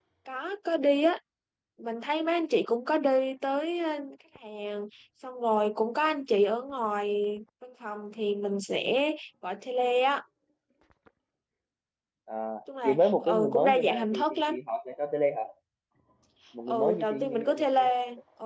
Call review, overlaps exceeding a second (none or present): present